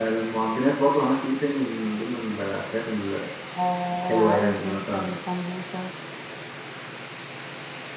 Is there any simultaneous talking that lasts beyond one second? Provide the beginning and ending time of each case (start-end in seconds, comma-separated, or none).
3.9-5.2